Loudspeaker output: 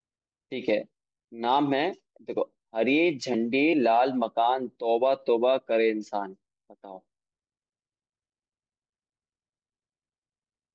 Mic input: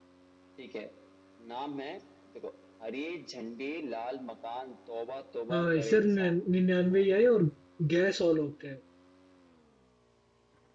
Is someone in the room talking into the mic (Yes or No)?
Yes